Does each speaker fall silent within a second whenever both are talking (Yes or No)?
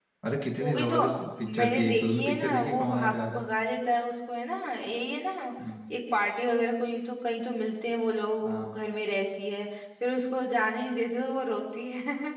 No